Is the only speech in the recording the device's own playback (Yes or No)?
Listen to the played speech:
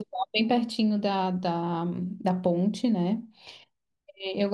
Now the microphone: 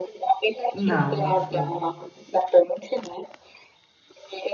No